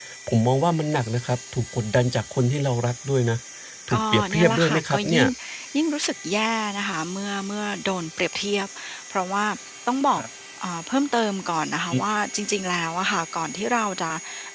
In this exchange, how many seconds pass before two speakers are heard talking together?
3.9 s

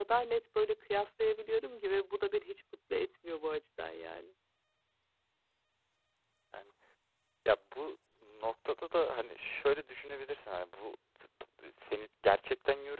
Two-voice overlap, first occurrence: none

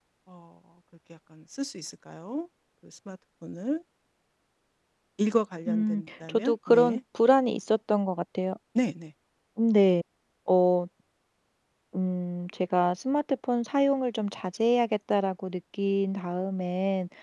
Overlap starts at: 5.7 s

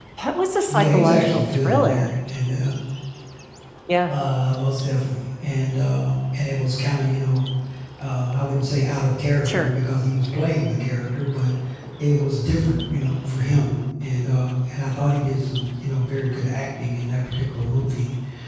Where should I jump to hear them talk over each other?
0.7 s

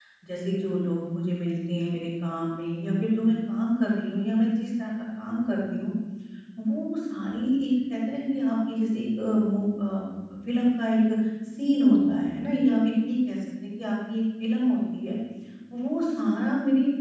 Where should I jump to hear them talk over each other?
none

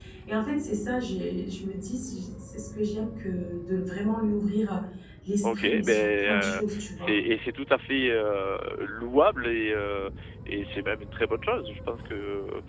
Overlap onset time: 5.4 s

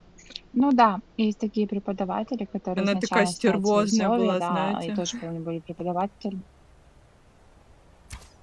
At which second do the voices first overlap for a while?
2.8 s

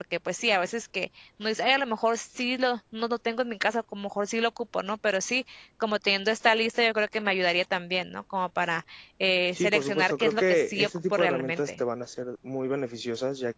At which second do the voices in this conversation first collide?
9.6 s

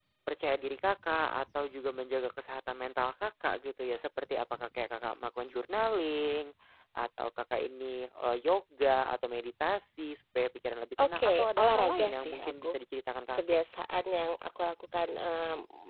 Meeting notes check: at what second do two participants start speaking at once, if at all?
11.0 s

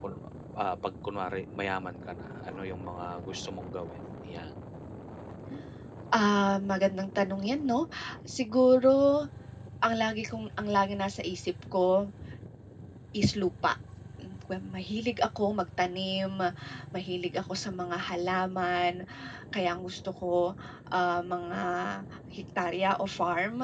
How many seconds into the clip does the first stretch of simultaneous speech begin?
none

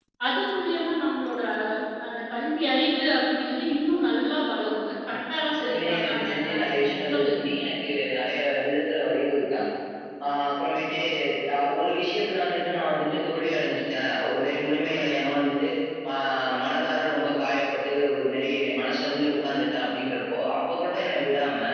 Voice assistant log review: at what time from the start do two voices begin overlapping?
5.1 s

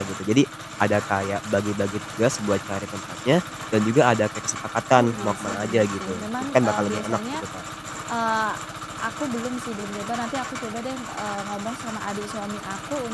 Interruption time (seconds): 4.9 s

